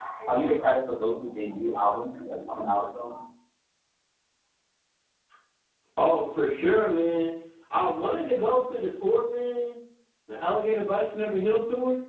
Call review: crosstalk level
none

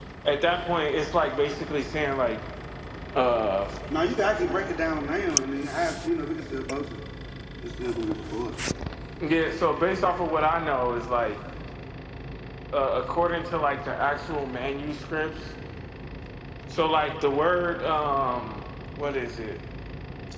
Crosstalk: none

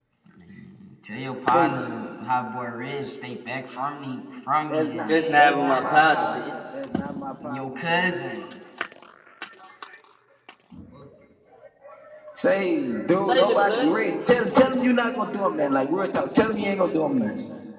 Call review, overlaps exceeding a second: present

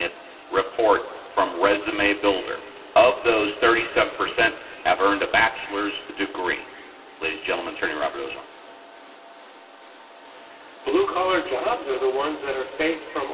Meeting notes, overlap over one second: none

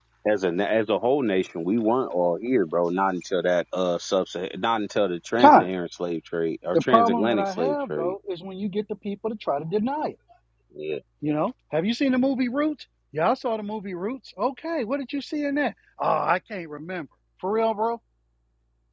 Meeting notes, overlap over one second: present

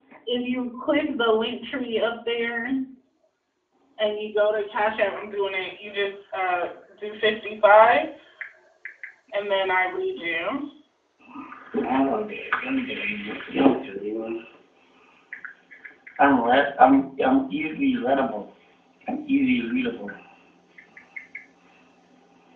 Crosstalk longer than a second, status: none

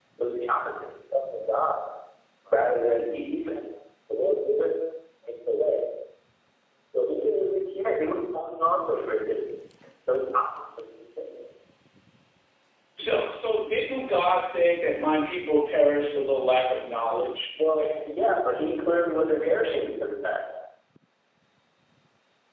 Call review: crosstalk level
none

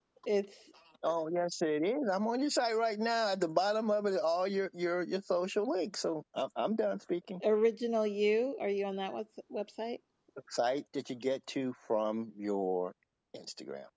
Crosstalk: none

